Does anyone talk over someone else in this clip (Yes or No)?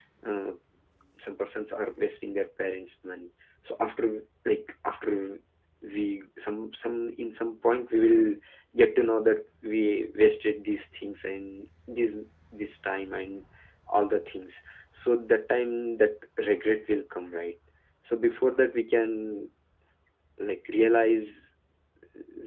No